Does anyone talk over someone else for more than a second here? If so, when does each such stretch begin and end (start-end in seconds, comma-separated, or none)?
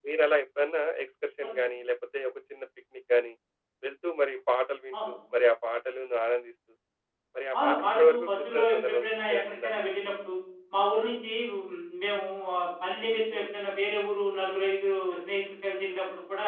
7.6-9.7